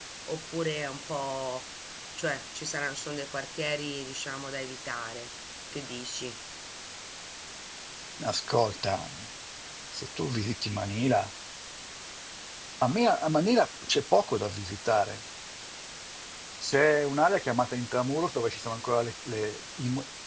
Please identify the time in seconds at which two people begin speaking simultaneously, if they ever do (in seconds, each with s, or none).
none